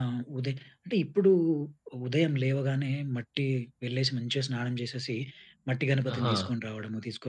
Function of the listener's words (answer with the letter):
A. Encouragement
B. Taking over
A